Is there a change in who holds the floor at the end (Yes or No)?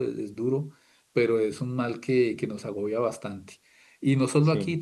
No